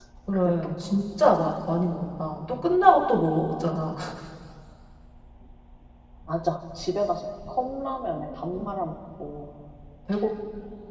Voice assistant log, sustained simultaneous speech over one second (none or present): none